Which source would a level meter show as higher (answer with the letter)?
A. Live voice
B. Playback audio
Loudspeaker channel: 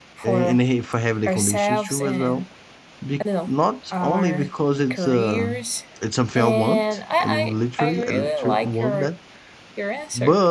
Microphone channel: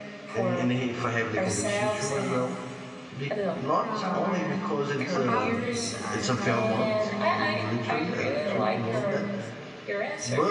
B